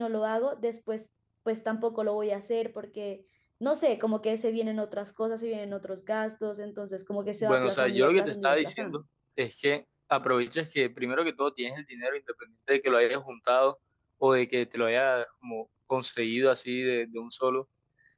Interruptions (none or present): present